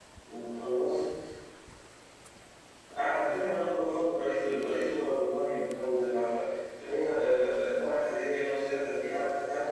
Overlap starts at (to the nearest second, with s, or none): none